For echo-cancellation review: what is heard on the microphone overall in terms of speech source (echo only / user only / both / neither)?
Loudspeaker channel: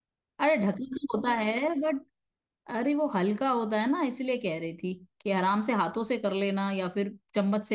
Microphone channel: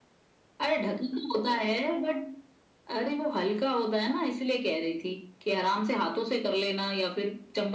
echo only